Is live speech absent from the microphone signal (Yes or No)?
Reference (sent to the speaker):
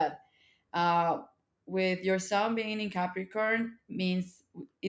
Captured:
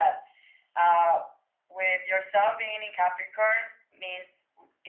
Yes